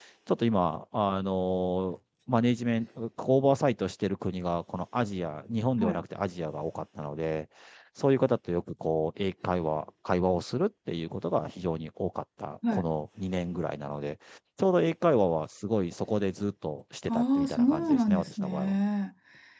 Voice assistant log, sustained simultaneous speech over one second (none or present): present